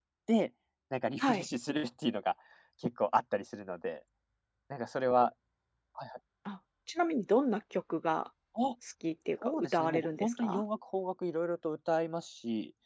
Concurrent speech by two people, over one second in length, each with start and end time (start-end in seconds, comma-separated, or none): 9.4-10.6